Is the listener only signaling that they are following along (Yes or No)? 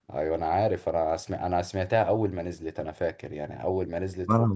Yes